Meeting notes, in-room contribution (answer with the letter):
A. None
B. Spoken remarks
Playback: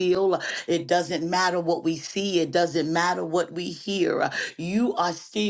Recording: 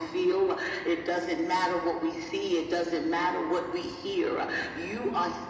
A